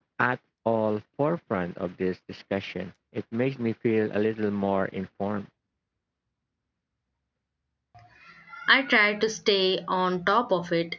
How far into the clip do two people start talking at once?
none

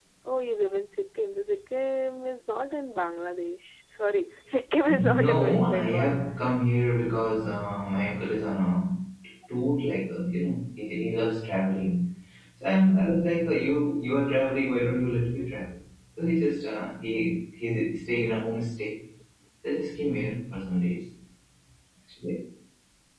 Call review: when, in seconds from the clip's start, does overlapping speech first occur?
4.9 s

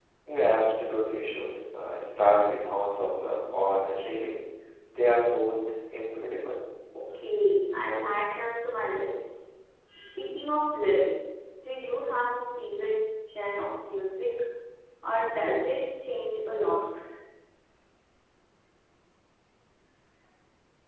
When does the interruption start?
none

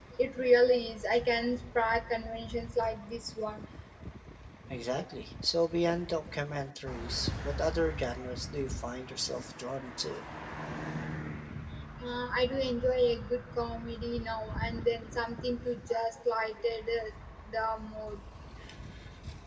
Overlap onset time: none

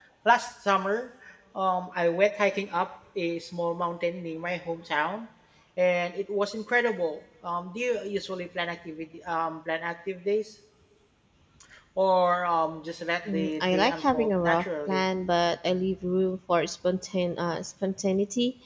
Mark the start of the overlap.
13.3 s

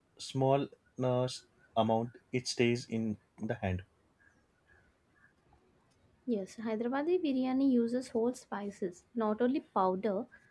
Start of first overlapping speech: none

